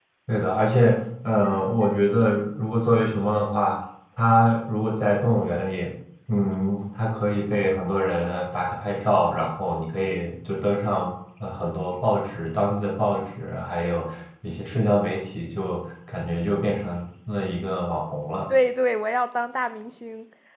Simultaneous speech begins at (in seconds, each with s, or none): none